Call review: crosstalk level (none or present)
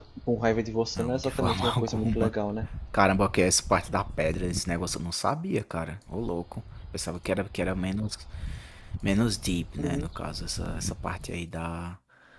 present